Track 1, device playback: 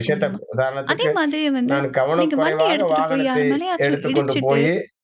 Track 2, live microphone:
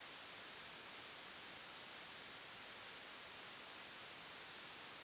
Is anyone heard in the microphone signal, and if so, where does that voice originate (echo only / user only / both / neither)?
neither